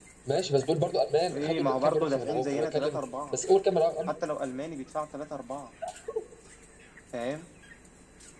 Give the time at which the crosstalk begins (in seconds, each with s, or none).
1.3 s